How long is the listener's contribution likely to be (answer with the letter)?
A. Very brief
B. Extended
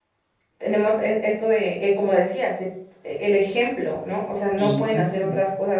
A